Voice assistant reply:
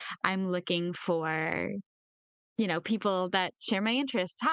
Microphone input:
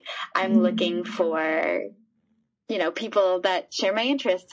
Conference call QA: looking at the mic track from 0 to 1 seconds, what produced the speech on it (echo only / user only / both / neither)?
both